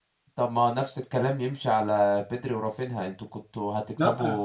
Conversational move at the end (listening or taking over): listening